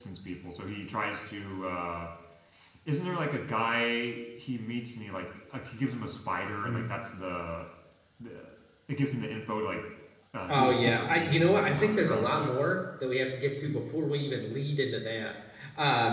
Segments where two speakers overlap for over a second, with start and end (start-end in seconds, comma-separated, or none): 10.5-12.7